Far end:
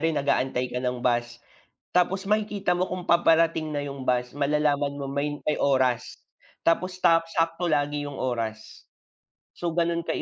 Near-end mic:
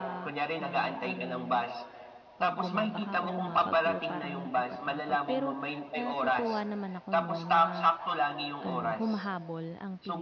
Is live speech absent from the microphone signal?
No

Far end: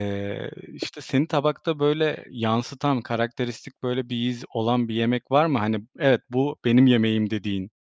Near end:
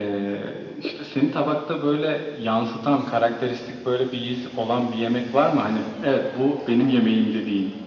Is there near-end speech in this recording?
No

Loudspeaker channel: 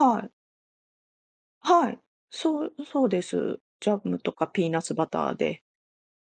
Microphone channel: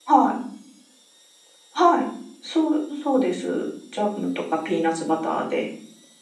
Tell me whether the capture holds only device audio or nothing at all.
Yes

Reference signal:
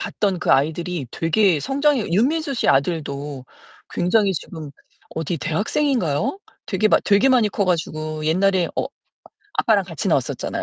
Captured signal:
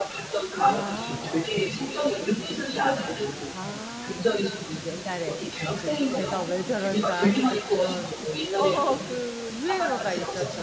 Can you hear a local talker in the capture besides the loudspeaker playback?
Yes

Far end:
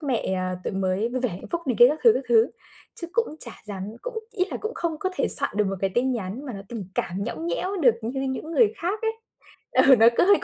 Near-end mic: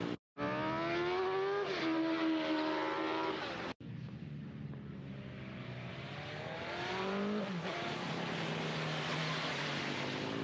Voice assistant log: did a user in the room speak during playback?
No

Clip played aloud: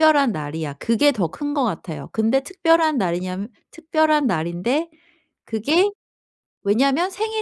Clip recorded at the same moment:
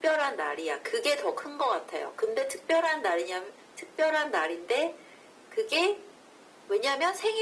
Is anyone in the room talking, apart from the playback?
No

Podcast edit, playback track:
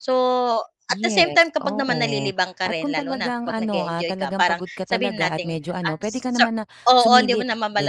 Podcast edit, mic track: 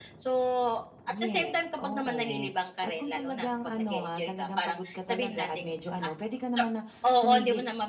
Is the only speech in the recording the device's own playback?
Yes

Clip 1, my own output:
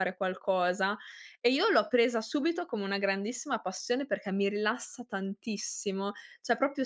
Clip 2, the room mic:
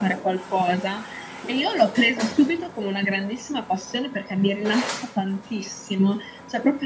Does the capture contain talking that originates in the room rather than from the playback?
No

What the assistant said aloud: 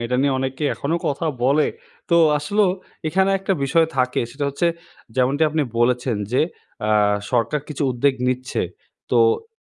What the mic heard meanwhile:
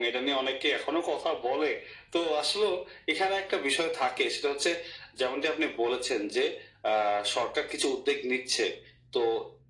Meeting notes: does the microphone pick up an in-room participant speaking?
No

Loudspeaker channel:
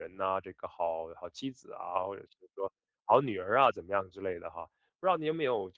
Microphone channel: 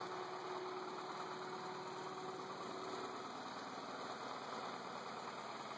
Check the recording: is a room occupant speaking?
No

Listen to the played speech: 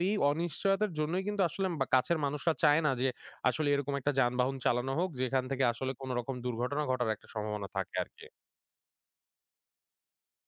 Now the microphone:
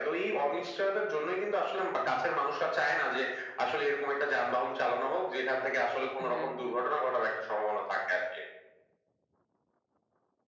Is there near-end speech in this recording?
Yes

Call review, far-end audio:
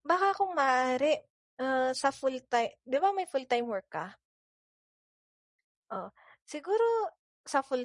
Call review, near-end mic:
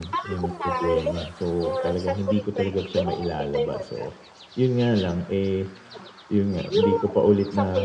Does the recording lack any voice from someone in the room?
No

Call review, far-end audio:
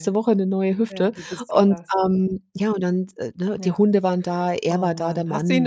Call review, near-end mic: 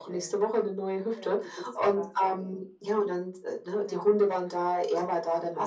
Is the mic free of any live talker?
Yes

